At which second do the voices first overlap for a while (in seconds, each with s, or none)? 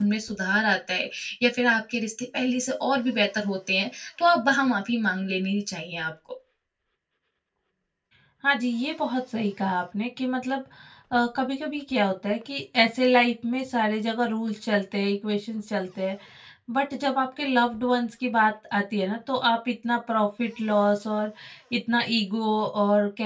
none